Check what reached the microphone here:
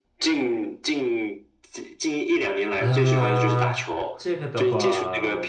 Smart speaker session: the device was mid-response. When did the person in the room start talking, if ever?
3 s

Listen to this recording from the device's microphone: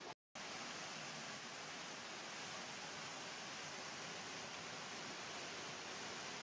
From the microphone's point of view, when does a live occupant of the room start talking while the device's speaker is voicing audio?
none

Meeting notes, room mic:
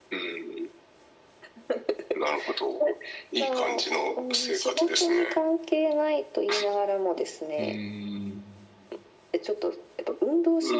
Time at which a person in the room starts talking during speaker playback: 8 s

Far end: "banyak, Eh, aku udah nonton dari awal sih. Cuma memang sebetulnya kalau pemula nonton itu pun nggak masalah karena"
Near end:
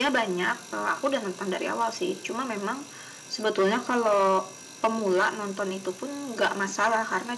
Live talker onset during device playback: none

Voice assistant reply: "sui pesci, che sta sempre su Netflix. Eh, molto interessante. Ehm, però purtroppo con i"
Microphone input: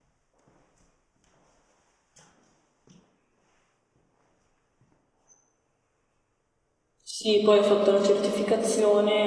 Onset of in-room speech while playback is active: 7 s

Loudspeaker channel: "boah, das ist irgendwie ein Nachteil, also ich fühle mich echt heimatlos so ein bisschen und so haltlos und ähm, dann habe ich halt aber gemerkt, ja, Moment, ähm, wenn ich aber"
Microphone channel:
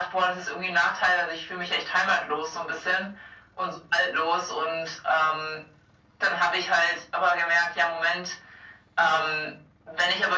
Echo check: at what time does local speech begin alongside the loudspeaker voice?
none

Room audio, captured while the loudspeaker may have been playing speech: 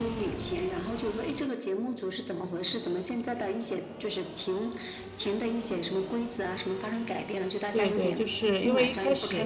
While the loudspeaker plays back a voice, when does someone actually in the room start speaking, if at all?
8 s

